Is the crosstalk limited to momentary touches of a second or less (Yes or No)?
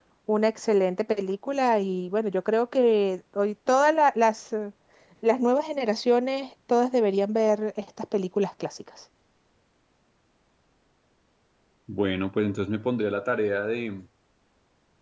Yes